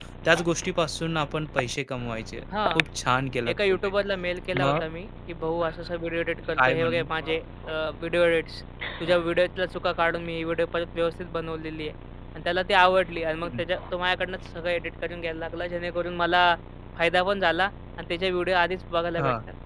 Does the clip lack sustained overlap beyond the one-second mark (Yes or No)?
Yes